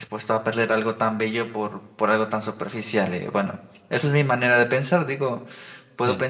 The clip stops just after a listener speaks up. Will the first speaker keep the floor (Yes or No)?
Yes